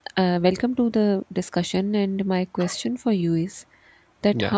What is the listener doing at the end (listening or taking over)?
listening